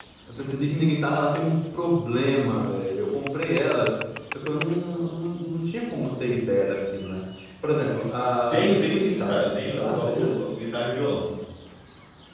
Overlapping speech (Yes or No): Yes